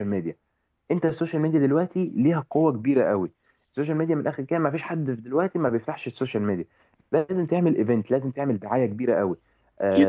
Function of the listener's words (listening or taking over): listening